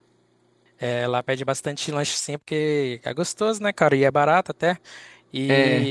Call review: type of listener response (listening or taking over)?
listening